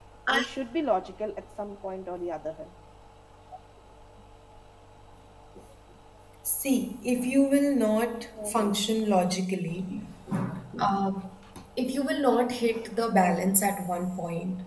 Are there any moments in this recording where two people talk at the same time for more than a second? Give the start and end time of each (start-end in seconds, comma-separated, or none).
none